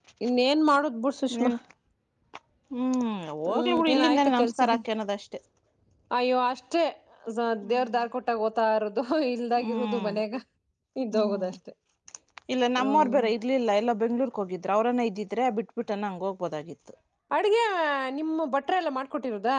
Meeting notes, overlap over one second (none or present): present